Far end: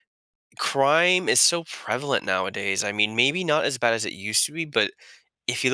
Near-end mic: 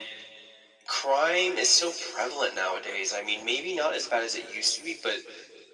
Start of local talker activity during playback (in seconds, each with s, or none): none